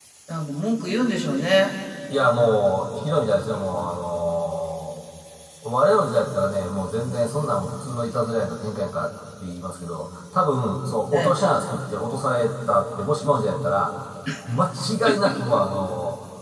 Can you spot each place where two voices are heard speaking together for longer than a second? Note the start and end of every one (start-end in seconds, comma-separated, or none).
none